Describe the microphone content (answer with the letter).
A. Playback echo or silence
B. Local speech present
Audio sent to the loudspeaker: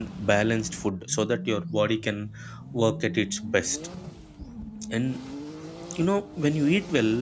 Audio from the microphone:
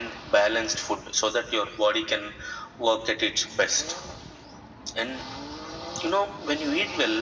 A